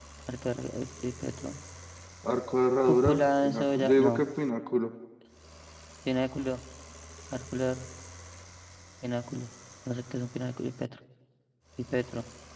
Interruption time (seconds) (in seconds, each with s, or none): 2.9 s